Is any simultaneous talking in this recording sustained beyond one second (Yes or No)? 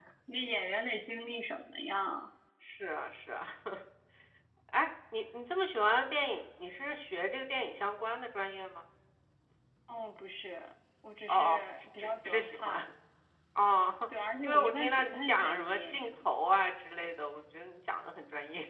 Yes